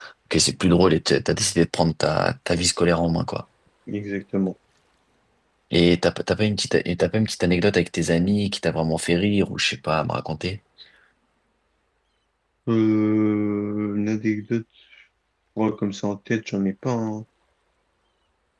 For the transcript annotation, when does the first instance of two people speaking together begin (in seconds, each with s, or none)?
none